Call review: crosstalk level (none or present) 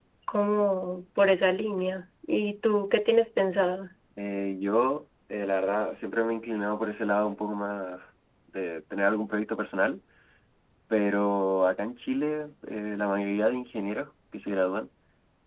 none